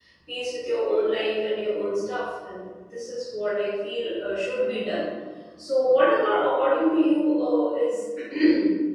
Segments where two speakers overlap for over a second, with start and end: none

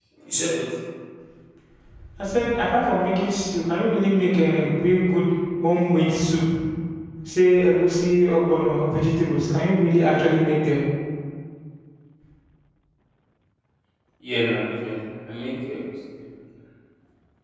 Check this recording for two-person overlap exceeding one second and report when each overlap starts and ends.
none

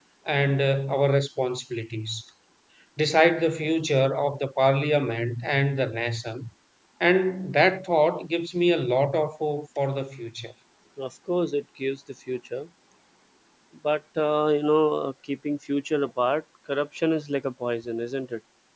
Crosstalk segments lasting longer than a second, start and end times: none

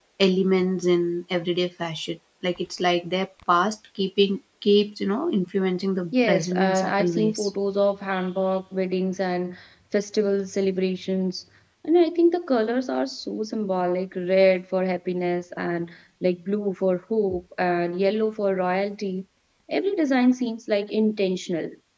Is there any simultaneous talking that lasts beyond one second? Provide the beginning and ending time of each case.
6.1-7.4

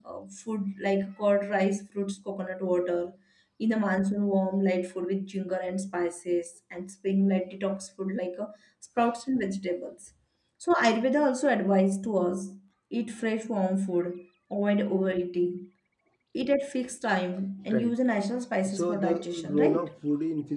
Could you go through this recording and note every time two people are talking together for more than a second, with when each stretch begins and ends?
18.7-19.9

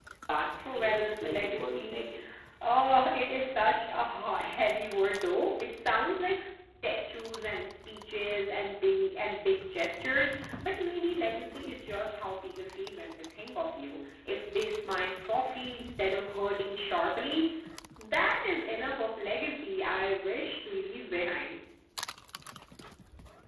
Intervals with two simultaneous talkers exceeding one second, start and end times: 0.6-2.1

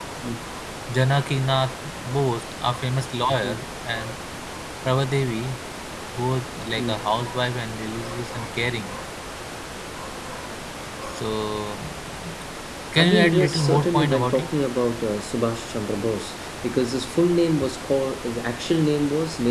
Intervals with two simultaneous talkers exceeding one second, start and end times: 13.0-14.5

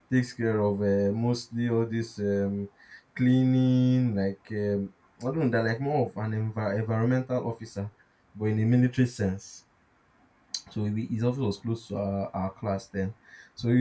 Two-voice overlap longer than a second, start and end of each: none

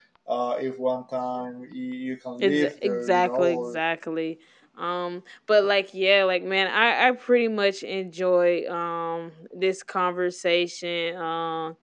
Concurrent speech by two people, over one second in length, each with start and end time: 2.4-3.8

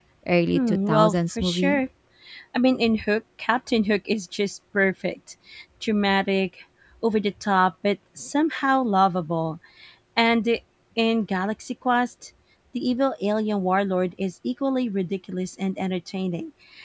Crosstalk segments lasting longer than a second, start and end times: 0.5-1.8

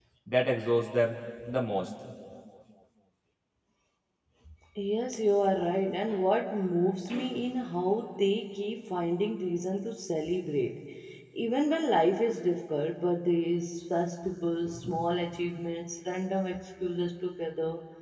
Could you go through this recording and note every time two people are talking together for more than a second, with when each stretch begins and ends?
none

